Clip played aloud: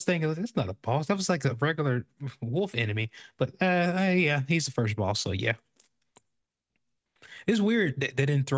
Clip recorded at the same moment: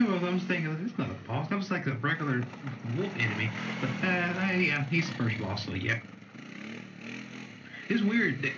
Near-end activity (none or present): none